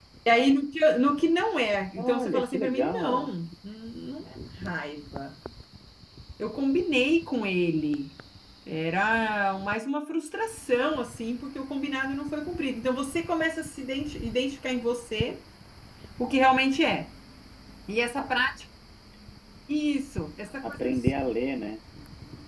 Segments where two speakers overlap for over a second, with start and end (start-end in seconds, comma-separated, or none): 2.0-3.3